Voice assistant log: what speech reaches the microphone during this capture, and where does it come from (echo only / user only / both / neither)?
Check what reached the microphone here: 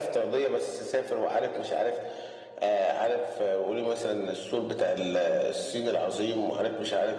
echo only